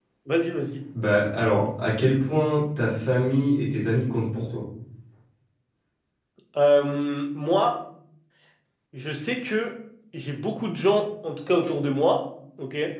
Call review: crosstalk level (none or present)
none